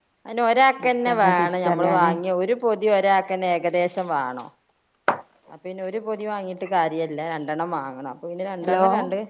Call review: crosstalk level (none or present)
present